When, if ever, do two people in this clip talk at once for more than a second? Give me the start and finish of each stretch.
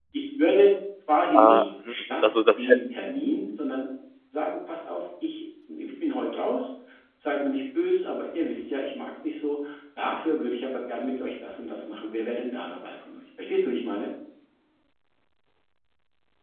1.4-3.1

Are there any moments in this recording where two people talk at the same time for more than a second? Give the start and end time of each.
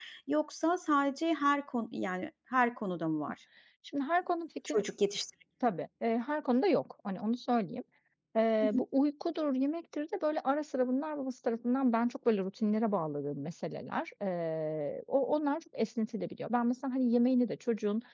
none

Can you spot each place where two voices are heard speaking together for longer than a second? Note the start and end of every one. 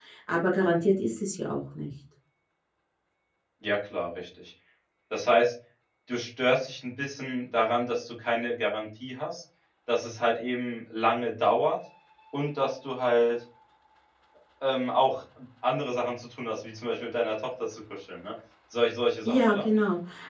none

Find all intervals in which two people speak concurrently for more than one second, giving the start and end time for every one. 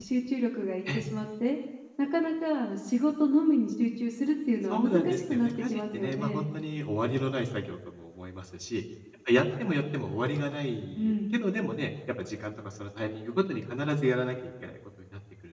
4.7-6.4

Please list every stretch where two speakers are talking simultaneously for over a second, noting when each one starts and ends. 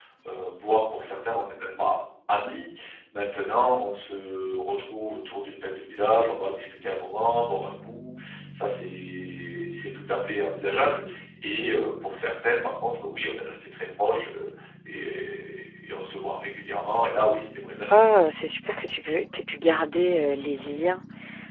none

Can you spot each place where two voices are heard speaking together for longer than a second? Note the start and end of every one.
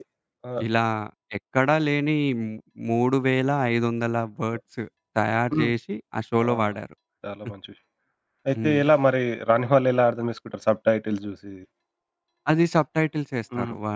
none

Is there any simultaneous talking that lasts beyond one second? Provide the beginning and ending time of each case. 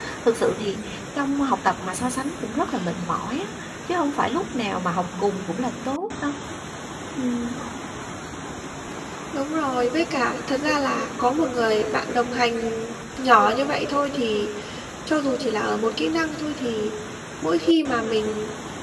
none

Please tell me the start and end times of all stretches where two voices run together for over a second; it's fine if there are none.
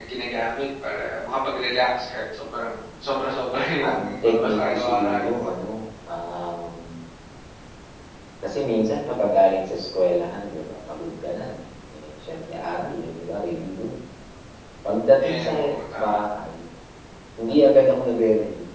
3.9-5.5

